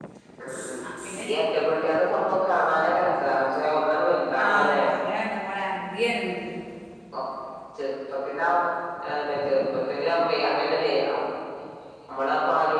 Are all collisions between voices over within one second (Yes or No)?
Yes